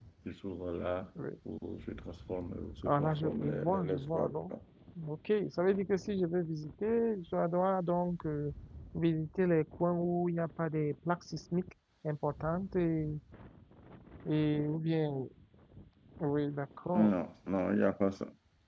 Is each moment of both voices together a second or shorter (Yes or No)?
No